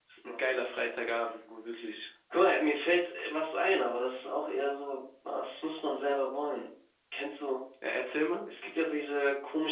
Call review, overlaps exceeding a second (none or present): none